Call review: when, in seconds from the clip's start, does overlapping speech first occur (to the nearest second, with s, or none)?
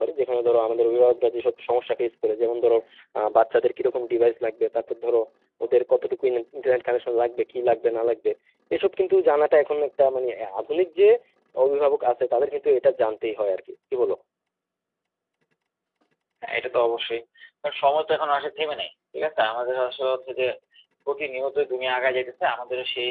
none